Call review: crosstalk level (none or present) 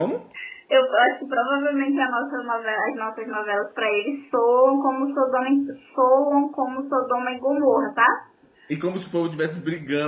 none